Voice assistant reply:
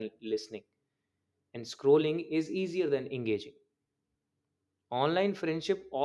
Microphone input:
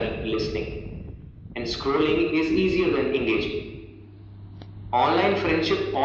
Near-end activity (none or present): none